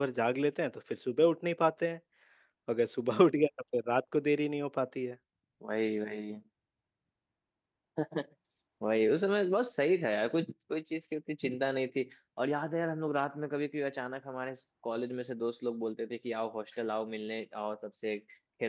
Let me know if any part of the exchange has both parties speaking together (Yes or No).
No